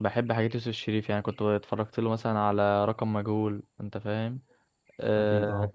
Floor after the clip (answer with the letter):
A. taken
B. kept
B